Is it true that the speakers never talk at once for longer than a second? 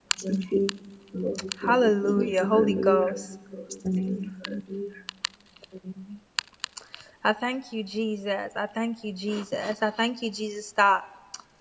No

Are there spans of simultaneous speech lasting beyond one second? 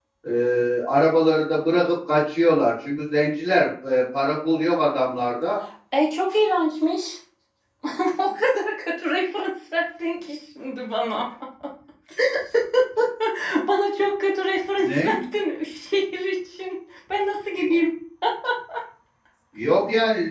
No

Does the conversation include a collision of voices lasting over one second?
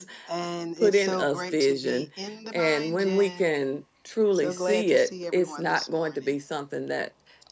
Yes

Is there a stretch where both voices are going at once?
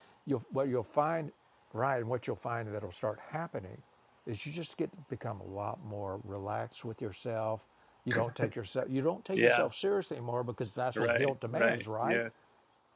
Yes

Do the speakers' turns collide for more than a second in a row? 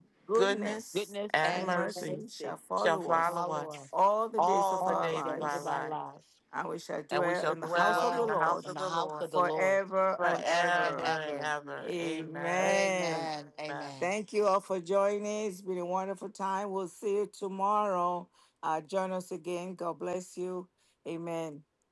Yes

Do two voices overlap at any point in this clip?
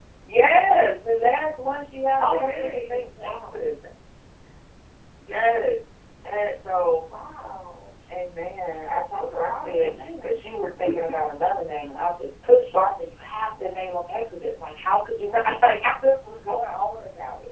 Yes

